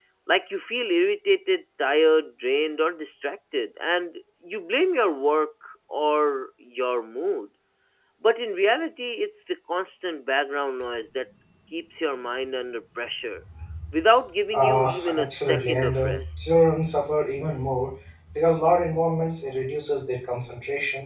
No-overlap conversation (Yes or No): No